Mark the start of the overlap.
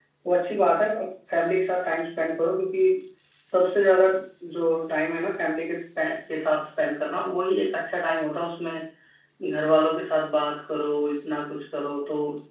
none

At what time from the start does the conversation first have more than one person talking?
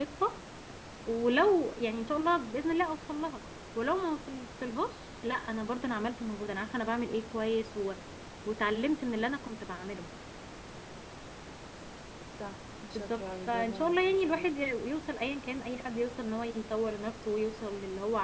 13.0 s

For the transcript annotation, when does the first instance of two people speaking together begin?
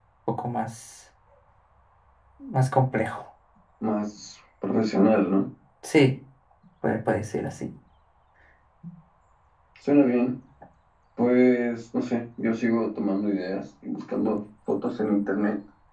none

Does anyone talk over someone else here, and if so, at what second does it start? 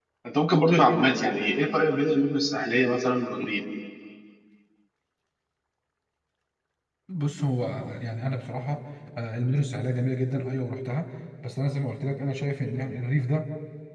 none

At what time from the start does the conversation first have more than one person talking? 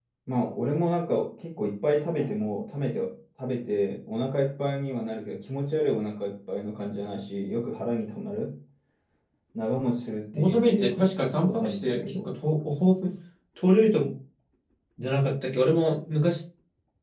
10.3 s

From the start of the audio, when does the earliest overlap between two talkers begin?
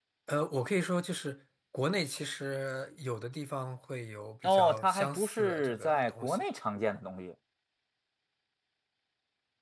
4.4 s

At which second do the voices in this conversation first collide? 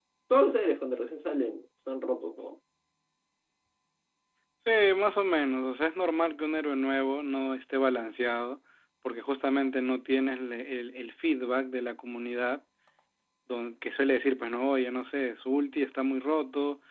none

